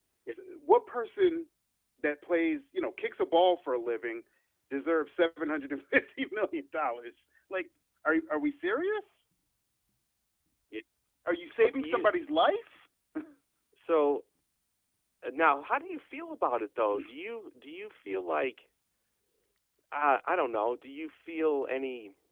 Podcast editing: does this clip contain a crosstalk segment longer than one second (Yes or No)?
No